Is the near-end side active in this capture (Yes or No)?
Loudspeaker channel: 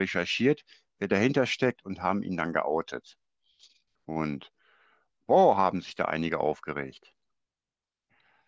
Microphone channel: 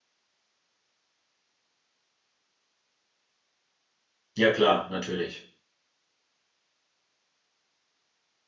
Yes